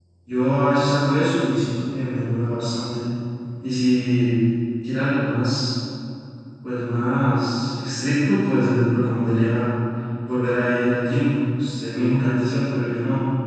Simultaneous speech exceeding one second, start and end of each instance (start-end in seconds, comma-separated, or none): none